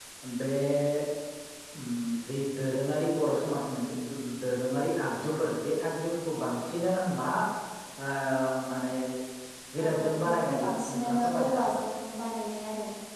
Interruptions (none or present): present